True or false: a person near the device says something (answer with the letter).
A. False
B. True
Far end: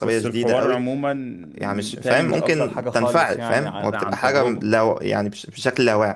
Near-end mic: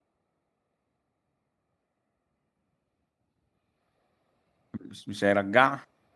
B